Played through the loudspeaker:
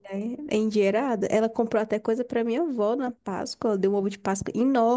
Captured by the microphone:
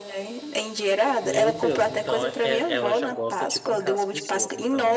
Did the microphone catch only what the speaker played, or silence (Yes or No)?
No